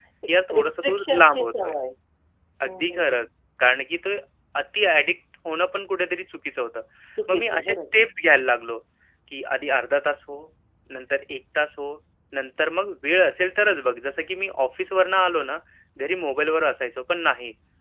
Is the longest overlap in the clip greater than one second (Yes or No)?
Yes